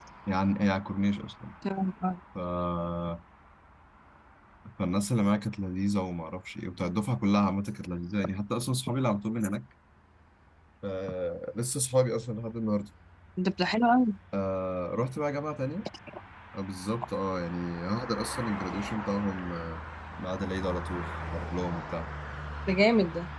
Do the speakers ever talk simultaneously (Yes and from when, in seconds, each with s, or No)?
No